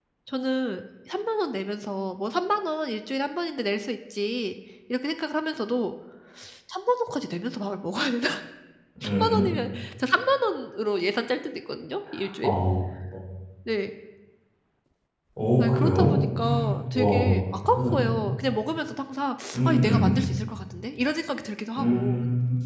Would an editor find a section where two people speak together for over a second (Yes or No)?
Yes